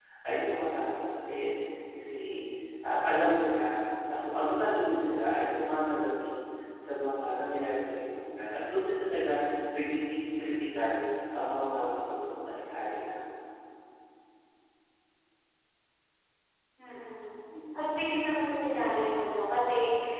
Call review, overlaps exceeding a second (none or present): none